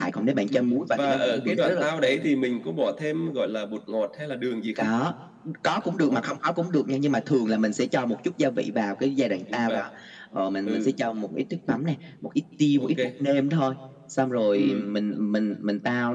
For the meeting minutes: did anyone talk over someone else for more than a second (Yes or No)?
Yes